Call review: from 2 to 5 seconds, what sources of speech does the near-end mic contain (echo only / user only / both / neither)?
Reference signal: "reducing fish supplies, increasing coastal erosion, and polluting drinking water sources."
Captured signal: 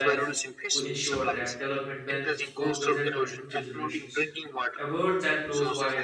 both